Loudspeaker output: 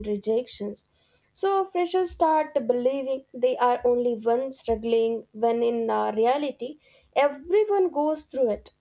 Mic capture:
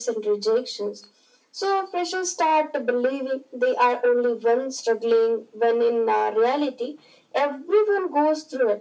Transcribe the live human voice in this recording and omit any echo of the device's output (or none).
none